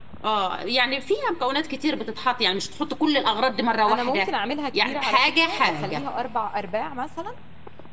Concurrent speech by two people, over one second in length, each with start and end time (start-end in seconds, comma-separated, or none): 4.7-6.0